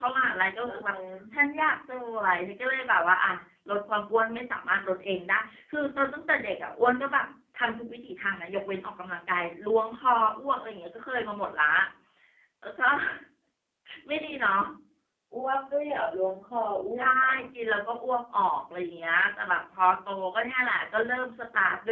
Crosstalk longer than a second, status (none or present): none